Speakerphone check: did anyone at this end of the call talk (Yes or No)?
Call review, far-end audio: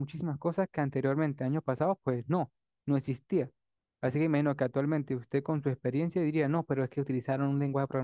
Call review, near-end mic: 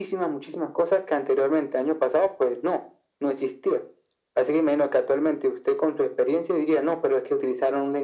No